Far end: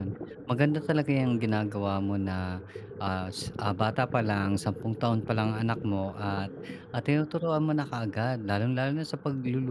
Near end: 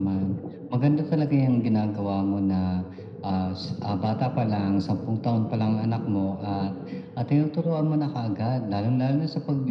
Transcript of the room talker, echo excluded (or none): none